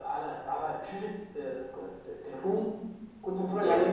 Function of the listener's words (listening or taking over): listening